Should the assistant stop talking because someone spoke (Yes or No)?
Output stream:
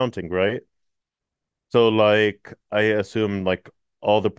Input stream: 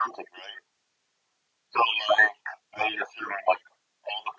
No